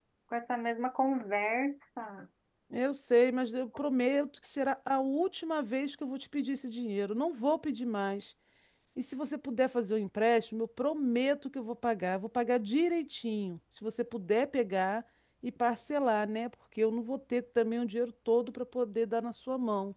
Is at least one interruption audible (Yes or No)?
No